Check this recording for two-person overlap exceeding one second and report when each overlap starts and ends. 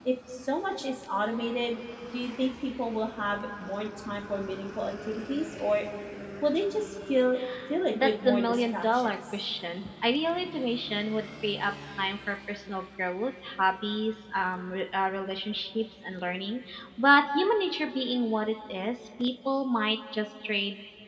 7.9-9.2

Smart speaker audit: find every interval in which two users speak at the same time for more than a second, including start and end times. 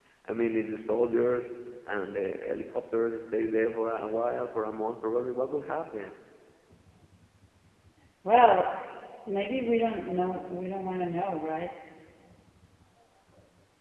none

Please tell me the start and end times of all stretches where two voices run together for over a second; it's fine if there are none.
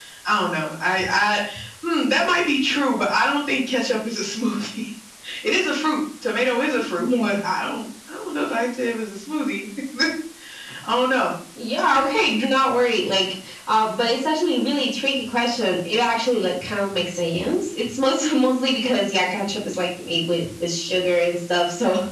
none

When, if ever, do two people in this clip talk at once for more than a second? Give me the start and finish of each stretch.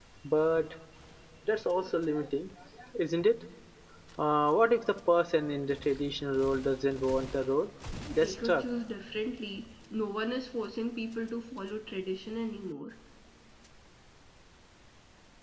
none

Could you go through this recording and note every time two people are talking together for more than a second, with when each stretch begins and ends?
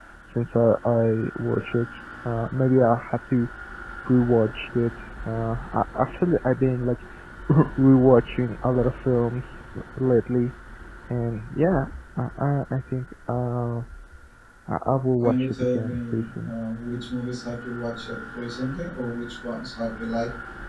15.2-16.5

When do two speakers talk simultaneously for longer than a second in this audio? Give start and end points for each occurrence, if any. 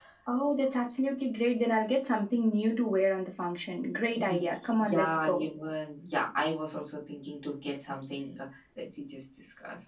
4.2-5.5

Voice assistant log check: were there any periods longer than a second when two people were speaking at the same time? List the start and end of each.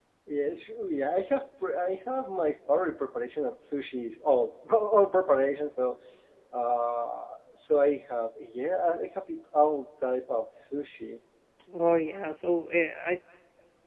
none

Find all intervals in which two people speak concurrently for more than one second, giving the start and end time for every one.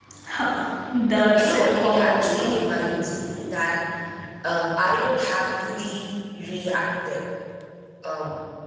1.3-2.6

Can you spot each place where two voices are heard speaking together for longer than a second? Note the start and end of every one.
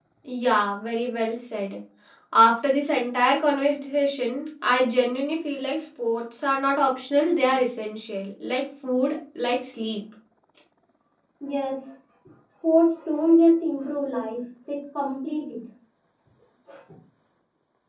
none

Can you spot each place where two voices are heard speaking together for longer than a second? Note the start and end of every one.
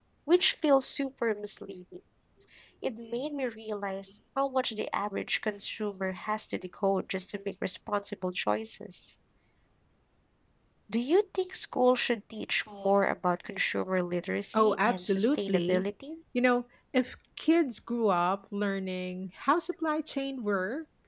14.5-15.8

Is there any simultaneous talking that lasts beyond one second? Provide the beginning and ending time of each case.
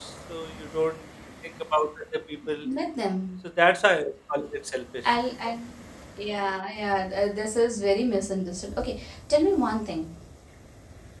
none

